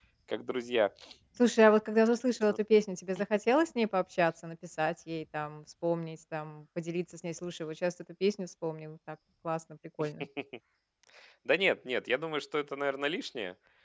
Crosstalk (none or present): none